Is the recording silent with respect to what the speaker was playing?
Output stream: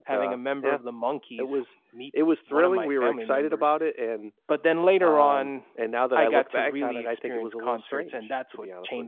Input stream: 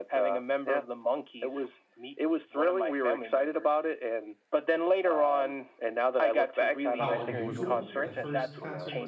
No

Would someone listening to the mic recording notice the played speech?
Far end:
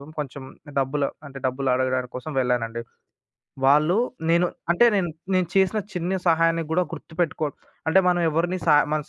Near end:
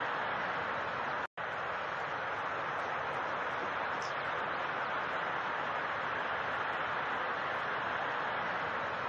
No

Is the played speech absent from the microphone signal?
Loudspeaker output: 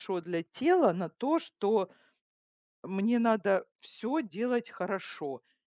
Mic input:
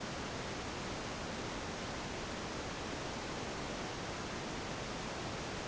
Yes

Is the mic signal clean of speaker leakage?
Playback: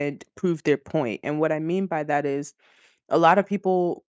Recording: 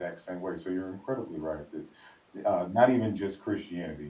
Yes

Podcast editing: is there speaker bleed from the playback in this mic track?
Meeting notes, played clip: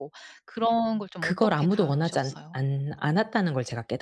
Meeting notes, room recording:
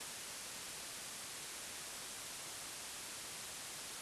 No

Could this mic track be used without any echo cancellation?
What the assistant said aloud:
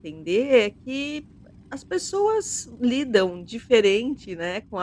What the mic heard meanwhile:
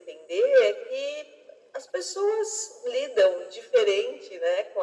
No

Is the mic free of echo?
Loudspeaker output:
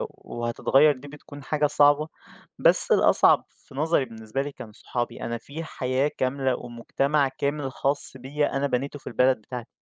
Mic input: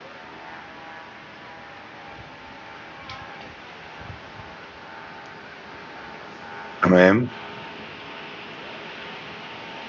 Yes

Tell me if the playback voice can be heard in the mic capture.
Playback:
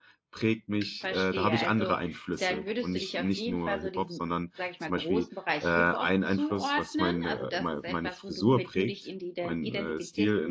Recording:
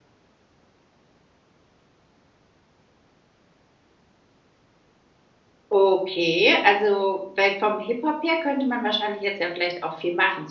No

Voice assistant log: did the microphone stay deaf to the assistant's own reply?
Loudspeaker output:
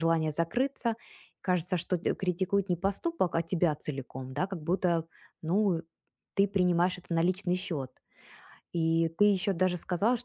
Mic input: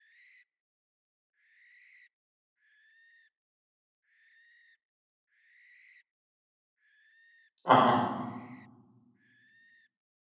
Yes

